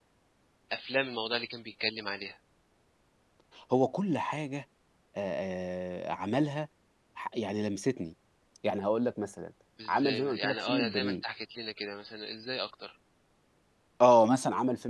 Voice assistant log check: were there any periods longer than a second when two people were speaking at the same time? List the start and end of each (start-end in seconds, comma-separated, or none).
9.9-11.2